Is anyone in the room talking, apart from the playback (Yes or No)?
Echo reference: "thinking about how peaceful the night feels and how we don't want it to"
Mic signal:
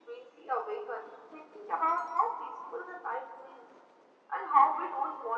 No